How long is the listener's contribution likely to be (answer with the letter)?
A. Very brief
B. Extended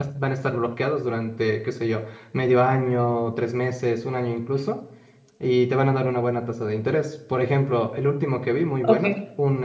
A